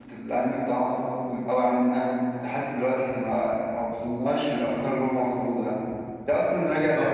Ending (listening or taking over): listening